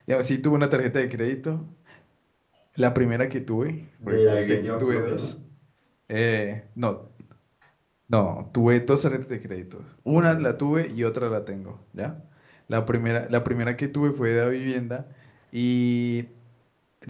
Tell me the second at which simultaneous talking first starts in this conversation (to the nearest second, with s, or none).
4 s